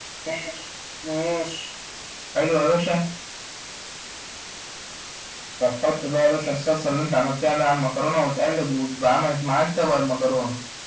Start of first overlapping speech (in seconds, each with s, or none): none